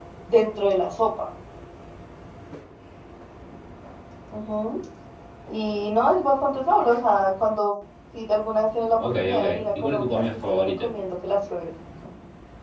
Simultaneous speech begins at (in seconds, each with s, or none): 9.0 s